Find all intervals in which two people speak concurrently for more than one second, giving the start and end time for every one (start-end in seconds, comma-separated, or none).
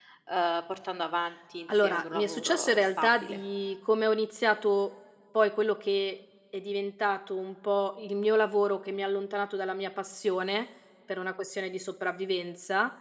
1.8-3.4